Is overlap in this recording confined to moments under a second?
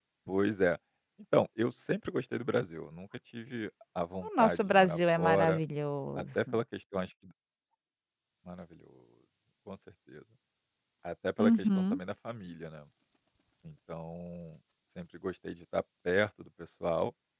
No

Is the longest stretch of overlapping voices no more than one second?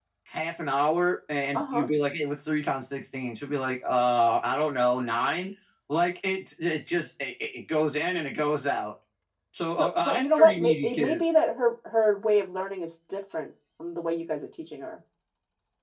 No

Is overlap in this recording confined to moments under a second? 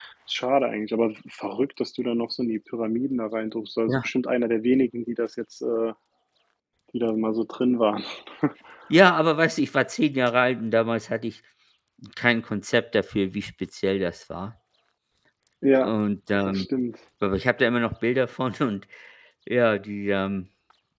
Yes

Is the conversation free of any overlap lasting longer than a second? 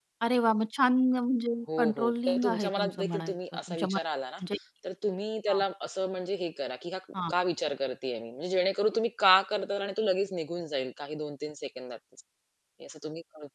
No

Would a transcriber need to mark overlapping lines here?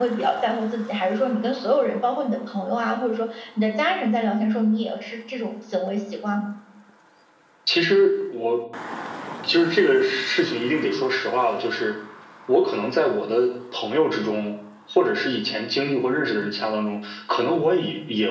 No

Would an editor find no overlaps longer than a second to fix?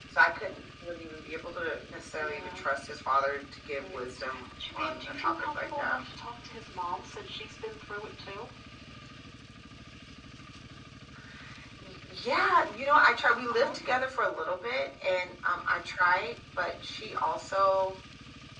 No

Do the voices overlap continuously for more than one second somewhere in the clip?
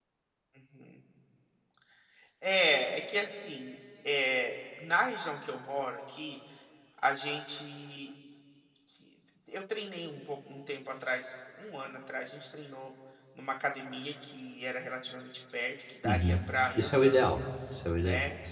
No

